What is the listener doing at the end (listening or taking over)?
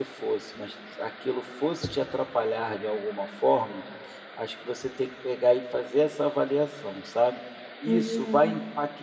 listening